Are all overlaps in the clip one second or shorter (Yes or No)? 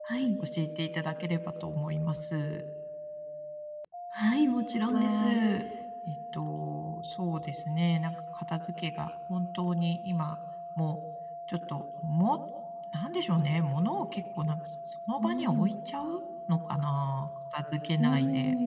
Yes